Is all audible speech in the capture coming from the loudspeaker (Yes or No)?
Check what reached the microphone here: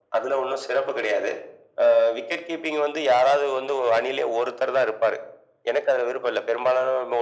Yes